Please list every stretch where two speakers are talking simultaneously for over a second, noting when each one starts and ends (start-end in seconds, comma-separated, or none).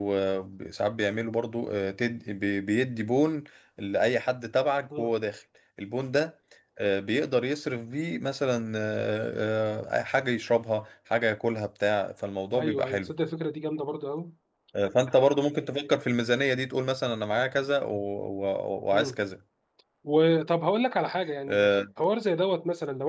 none